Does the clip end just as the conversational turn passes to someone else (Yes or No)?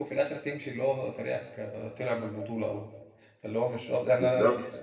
Yes